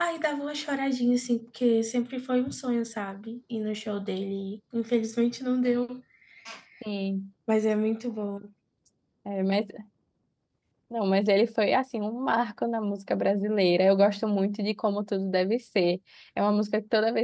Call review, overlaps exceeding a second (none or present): none